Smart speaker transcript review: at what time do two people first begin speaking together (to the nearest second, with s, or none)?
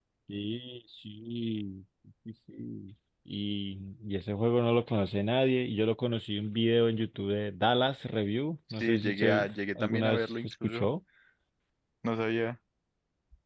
9 s